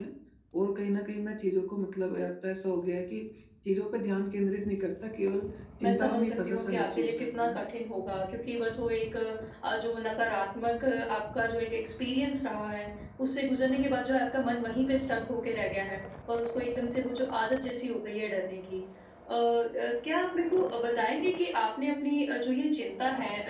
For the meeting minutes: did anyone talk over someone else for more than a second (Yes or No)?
Yes